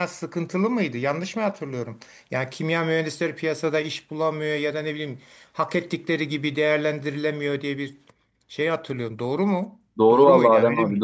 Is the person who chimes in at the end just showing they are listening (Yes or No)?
No